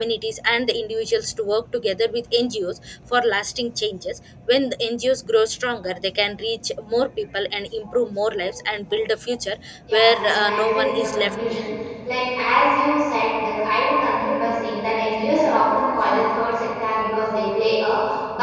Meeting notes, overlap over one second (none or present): present